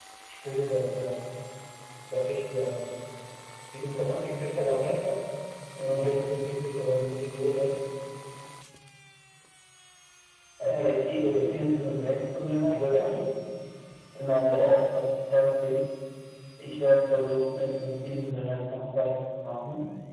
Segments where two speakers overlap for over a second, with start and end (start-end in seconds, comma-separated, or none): 10.6-12.2